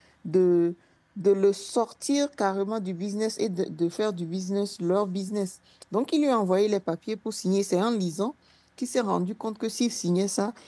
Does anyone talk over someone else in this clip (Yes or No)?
No